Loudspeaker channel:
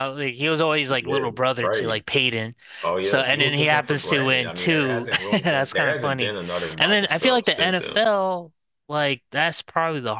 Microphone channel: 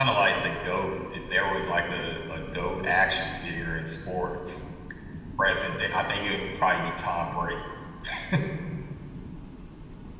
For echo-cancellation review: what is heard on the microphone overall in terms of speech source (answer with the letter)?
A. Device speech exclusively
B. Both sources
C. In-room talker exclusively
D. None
C